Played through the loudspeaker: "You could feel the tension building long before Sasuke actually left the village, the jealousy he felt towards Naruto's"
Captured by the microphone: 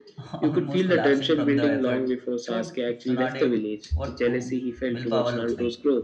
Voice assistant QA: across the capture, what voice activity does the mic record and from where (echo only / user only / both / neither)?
both